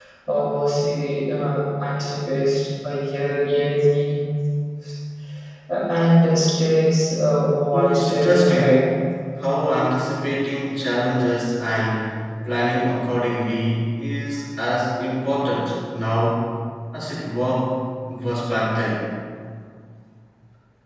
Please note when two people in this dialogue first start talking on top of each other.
7.7 s

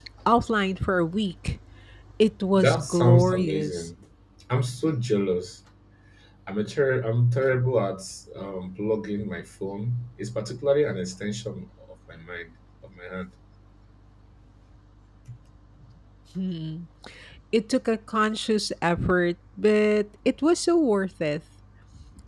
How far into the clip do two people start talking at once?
2.5 s

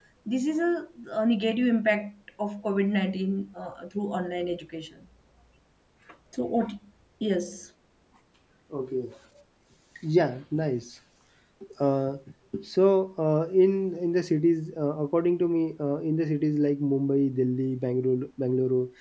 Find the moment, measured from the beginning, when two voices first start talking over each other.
none

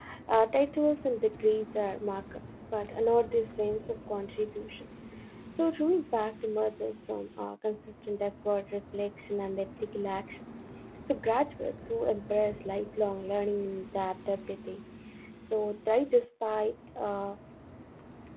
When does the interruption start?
none

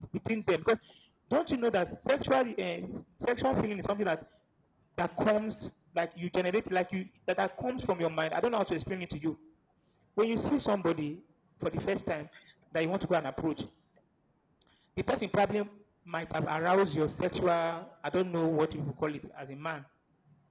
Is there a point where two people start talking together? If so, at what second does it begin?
none

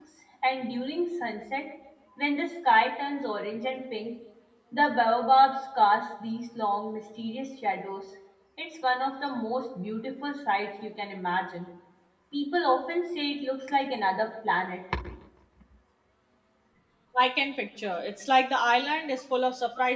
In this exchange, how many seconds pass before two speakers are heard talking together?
none

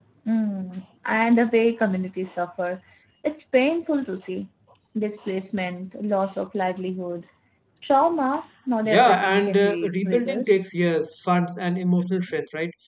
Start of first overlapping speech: 8.8 s

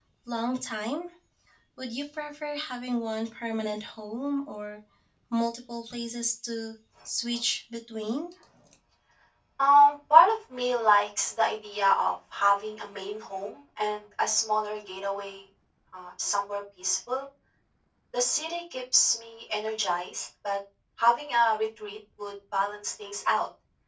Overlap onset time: none

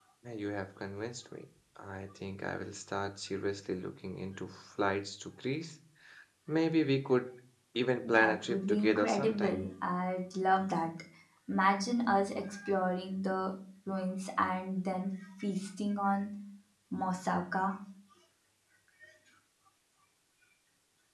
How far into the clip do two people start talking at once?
8.0 s

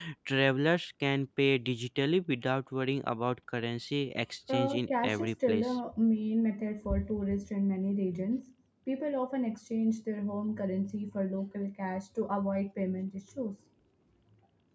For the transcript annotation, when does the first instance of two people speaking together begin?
4.5 s

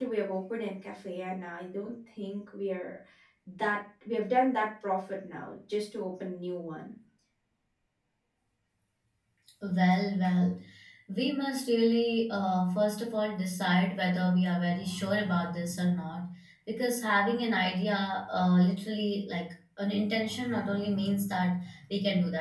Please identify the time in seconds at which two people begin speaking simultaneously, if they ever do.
none

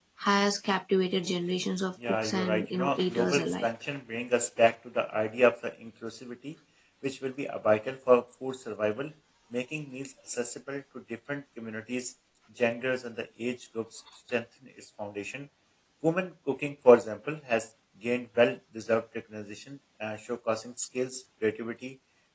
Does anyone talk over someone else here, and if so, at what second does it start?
2.2 s

